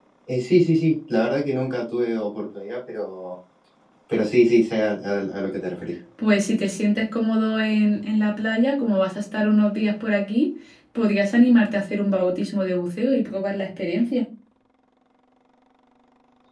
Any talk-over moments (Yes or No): No